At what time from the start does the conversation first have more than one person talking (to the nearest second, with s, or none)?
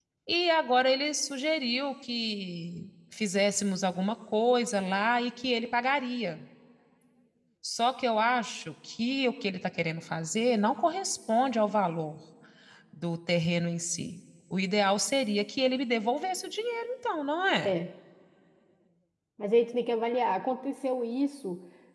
none